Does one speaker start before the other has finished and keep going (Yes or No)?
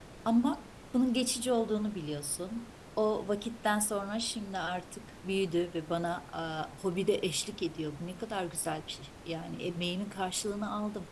No